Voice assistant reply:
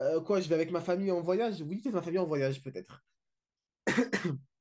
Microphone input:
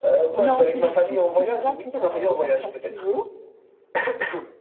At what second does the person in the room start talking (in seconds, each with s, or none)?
0.3 s